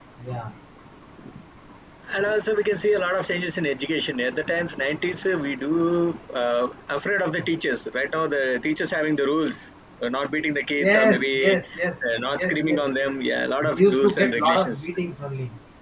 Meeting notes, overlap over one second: present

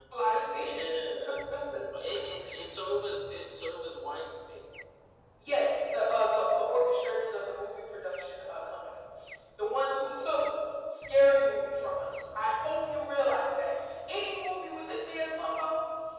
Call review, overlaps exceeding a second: none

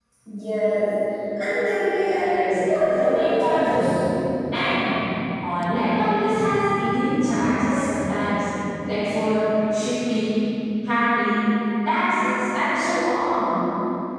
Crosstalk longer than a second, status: present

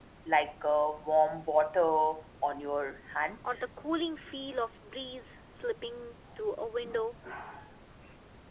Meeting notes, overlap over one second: none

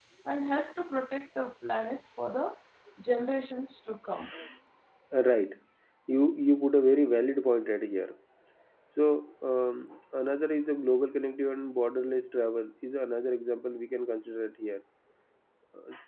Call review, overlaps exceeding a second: none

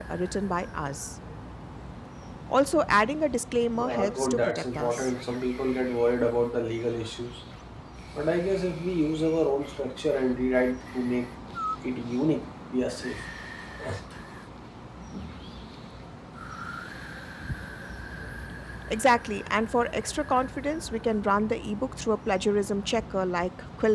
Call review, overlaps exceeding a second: present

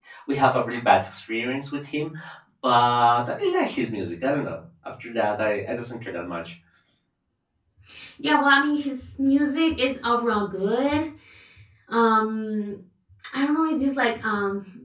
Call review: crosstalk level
none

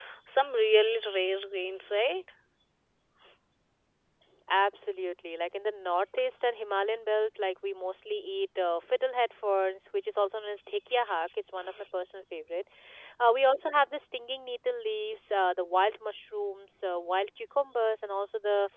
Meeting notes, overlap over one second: none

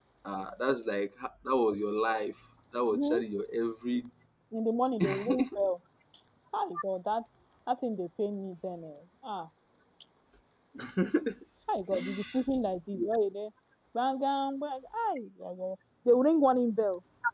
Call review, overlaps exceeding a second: none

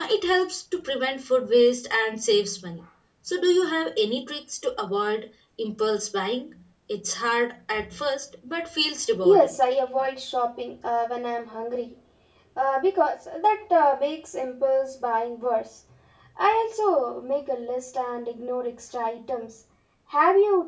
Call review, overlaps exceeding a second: none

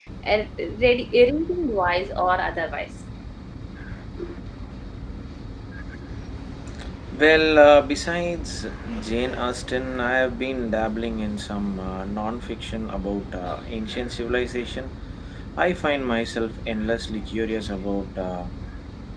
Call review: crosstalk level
none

